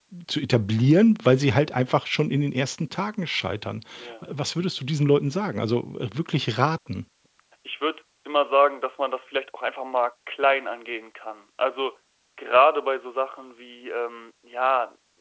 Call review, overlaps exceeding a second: none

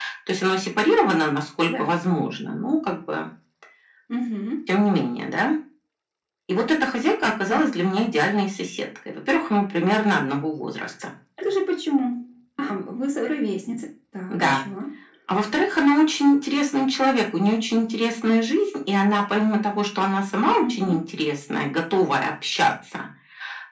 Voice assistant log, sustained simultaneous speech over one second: none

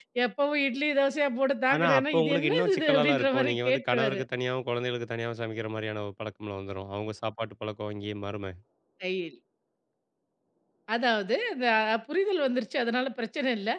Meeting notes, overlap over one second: present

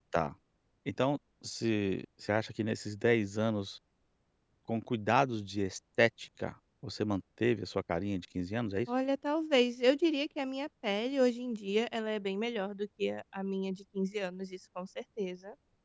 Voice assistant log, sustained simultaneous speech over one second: none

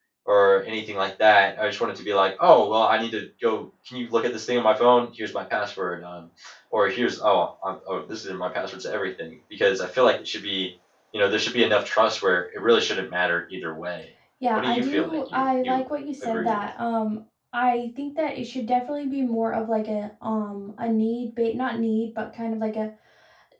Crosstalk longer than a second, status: present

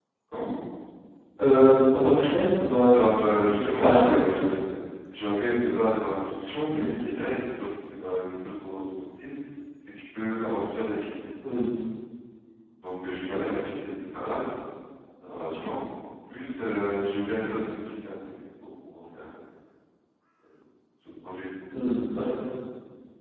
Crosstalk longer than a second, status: present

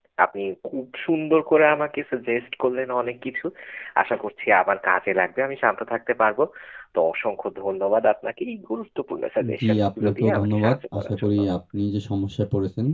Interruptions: present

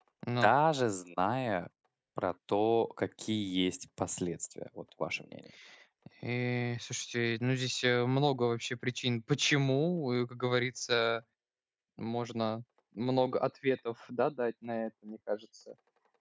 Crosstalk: none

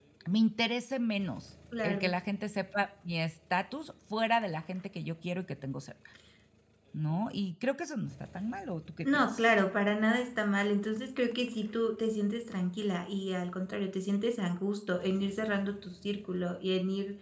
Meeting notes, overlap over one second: none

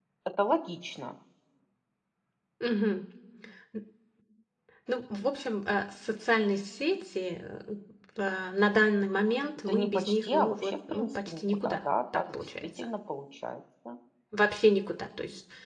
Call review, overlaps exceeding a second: present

